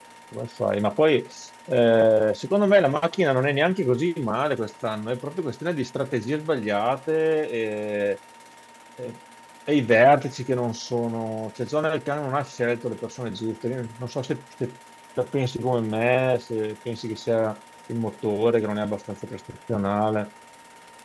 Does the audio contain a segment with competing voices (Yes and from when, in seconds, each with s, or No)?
No